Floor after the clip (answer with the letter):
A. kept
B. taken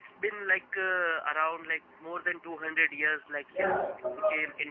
B